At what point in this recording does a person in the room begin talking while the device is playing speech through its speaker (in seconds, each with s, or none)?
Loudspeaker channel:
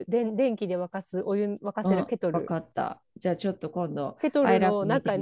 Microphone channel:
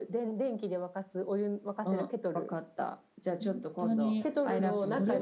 3.4 s